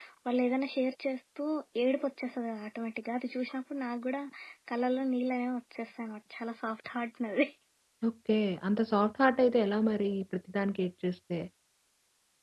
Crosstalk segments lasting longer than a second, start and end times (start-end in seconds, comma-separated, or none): none